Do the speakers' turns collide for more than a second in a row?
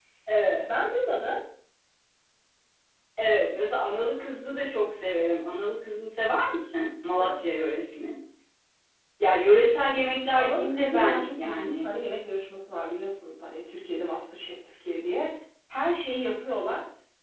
Yes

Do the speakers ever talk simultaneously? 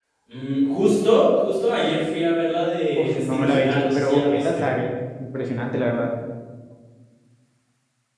Yes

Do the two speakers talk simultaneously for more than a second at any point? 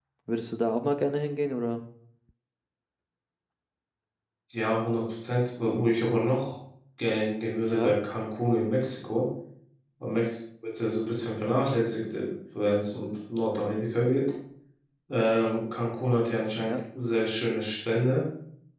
No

